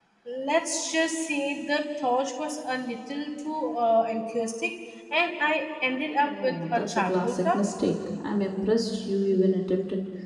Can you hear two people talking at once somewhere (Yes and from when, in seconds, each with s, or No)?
Yes, from 6.1 s